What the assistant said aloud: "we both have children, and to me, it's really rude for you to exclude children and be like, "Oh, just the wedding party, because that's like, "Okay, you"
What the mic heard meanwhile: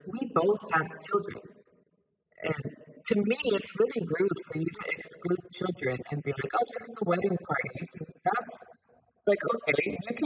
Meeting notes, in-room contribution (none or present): none